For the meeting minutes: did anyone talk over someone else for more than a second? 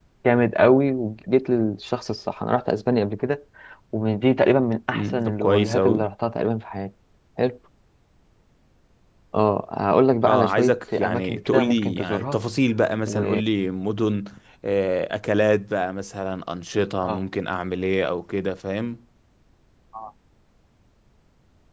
Yes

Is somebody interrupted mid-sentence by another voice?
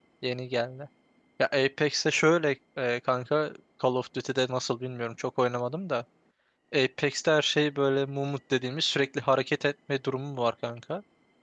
No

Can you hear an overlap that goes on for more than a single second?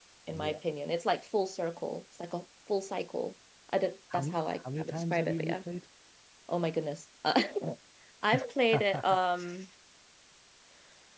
Yes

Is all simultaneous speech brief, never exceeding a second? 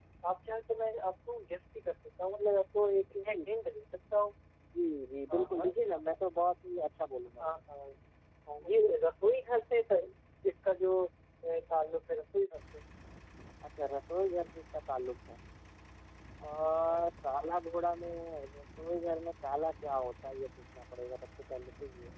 Yes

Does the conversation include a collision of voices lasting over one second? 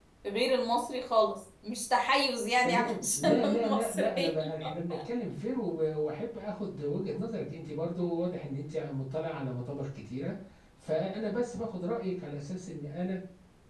Yes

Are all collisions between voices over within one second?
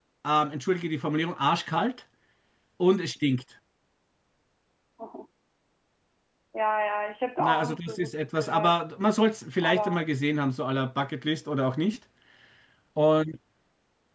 No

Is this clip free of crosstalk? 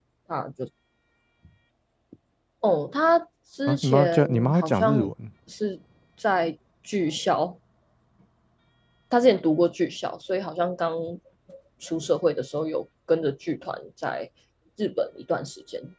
No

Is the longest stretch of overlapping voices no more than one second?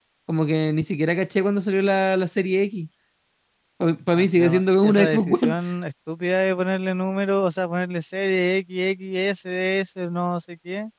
No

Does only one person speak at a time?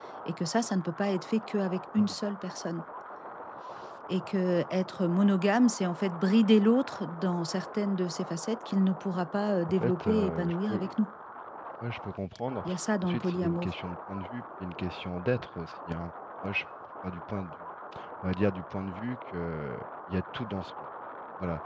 No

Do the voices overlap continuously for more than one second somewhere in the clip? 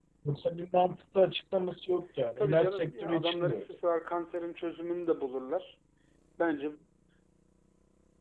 Yes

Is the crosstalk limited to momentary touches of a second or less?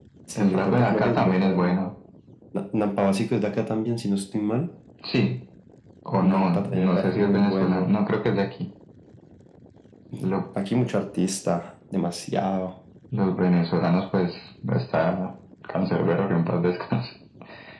No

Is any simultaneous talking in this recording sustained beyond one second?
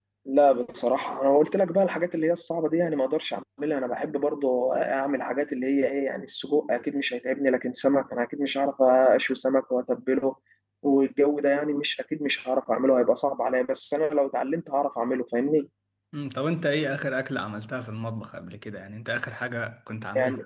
No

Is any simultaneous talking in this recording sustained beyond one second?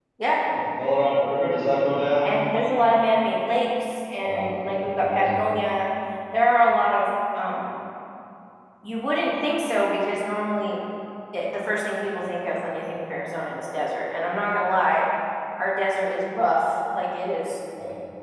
Yes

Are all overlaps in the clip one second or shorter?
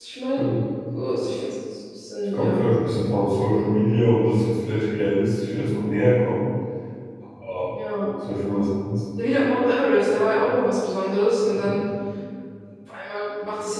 Yes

